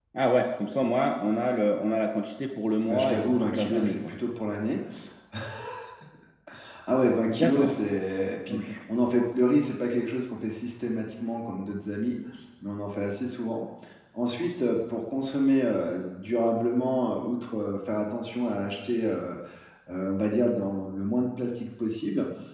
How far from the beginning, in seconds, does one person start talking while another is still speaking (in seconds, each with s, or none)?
2.9 s